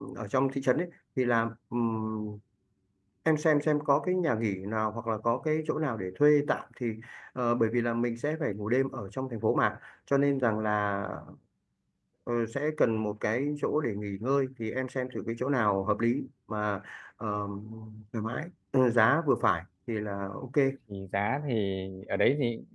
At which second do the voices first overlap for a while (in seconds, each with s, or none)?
none